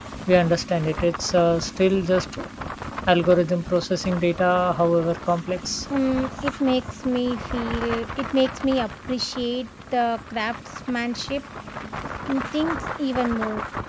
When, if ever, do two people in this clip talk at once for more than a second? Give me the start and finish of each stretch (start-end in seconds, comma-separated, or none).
none